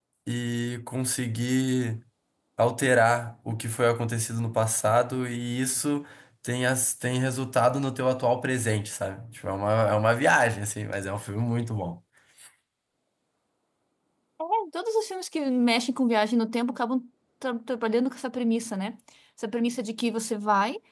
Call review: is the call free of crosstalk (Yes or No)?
Yes